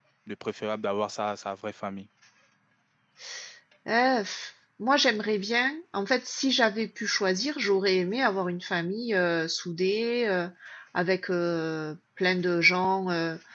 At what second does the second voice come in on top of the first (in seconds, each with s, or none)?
none